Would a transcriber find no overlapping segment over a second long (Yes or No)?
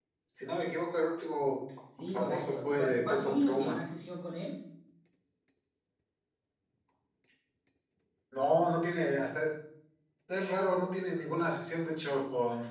No